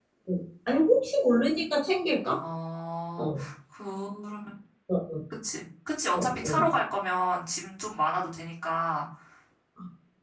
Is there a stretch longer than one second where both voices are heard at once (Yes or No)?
No